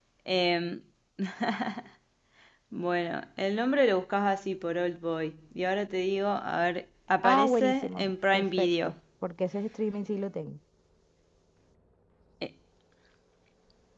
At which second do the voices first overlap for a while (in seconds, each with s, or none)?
7.2 s